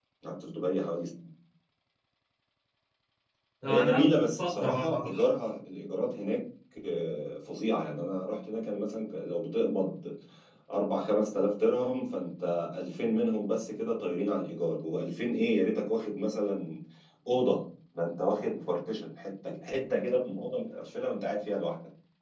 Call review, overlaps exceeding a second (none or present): present